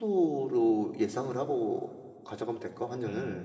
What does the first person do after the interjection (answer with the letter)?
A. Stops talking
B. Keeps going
A